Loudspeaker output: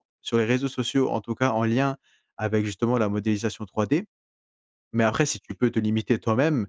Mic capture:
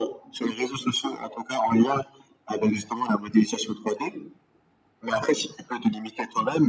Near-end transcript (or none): none